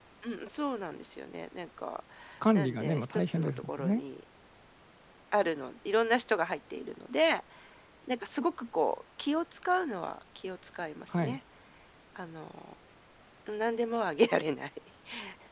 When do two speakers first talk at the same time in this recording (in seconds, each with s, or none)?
2.5 s